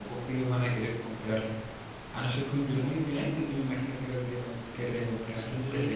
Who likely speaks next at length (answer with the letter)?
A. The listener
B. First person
A